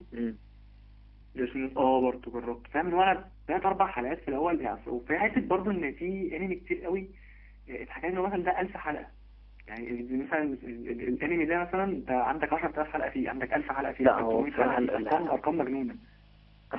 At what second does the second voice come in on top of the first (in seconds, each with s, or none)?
14.0 s